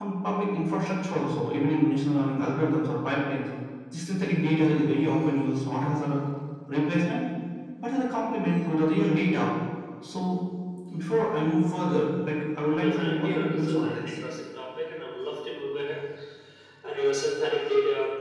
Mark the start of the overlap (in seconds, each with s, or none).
12.6 s